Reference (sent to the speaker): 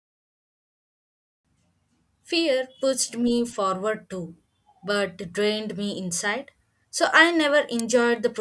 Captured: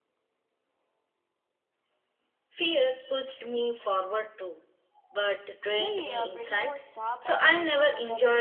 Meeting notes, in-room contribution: present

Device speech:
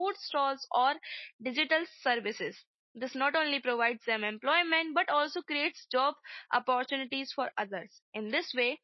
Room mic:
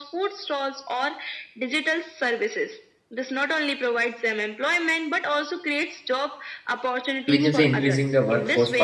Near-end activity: present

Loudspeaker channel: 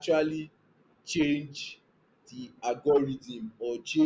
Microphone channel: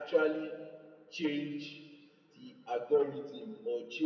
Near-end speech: none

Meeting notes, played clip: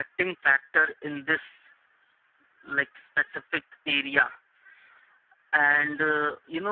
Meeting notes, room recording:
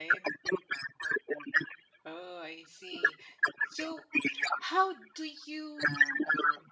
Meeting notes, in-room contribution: present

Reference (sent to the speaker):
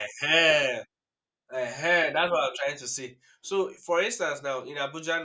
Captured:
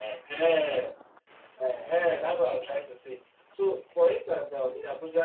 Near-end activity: none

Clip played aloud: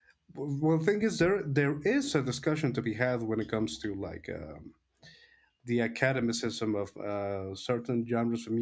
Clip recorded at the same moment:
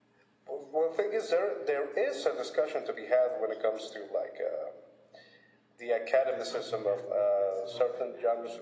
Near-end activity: present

